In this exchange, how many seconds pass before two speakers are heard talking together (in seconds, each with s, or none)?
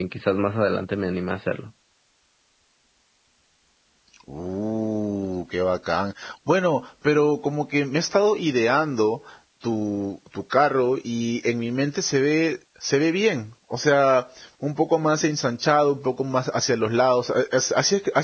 none